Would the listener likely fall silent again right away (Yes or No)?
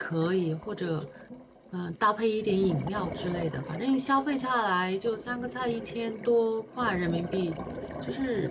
No